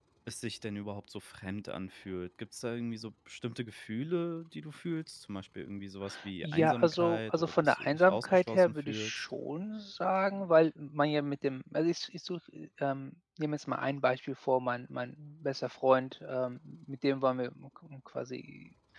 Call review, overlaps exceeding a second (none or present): present